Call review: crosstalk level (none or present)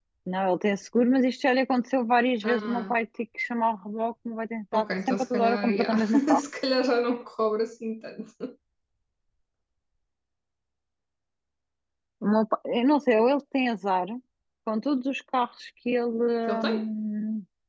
present